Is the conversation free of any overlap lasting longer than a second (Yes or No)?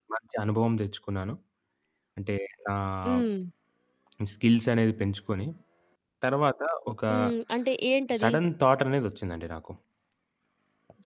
Yes